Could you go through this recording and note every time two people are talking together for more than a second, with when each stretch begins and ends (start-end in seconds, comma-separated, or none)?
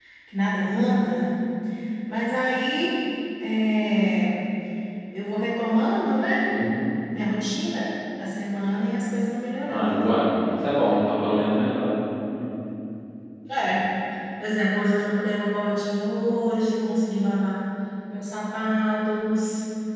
none